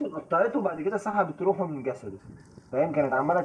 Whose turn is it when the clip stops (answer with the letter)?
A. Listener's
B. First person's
B